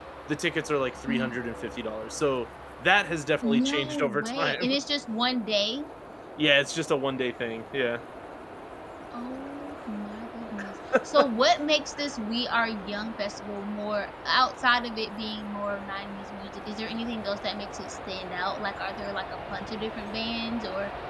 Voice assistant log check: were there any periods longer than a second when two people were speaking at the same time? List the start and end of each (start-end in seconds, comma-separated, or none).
3.4-4.7